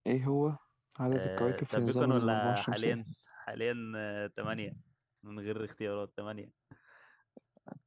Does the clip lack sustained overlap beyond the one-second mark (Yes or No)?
No